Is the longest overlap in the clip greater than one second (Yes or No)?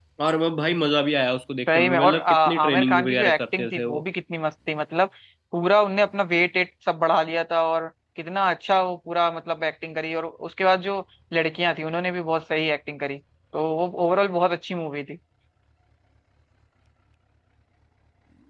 Yes